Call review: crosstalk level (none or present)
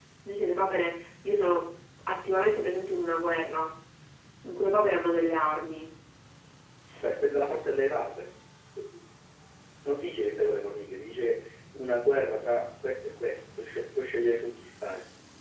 none